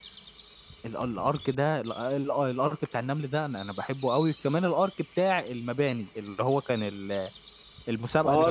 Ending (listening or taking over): taking over